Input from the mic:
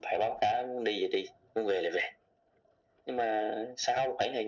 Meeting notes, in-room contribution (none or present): none